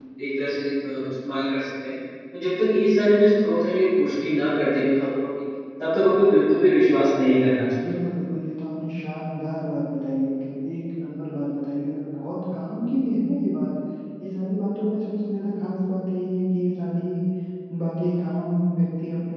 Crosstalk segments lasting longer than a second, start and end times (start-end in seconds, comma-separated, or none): none